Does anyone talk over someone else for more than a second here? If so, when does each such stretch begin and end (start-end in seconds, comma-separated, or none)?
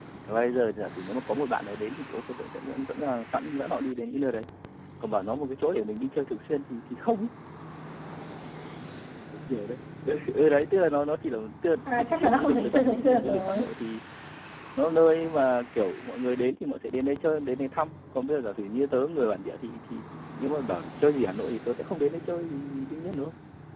11.9-13.7